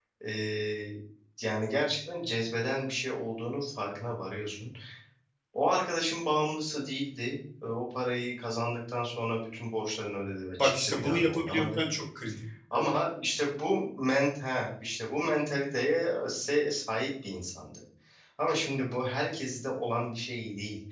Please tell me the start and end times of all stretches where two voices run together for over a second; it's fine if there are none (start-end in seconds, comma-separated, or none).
10.6-11.8